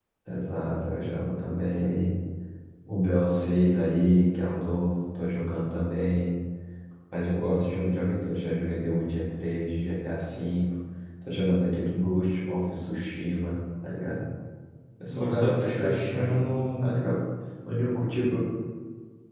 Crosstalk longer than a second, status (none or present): present